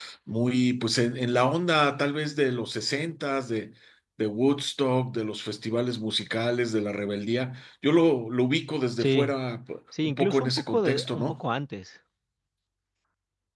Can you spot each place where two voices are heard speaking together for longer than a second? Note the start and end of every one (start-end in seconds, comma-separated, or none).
10.0-11.3